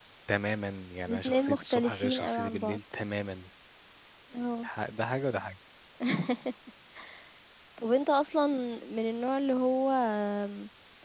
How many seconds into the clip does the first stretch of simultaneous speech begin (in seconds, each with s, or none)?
1.1 s